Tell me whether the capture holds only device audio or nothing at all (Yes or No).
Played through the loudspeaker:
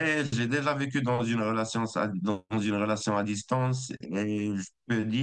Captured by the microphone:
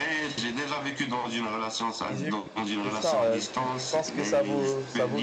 No